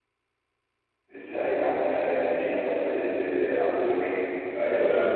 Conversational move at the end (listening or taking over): taking over